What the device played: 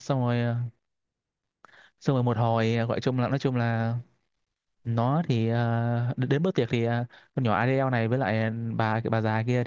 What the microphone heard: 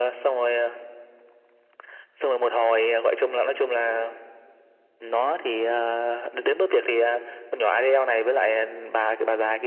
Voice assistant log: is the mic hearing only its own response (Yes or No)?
Yes